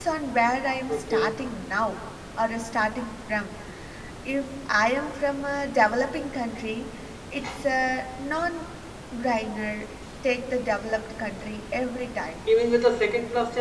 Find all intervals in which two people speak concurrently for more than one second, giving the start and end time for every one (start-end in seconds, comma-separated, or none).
none